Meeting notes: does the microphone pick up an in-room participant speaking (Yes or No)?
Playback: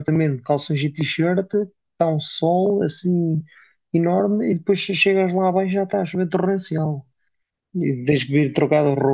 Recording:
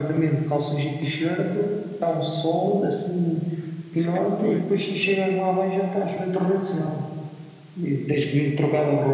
Yes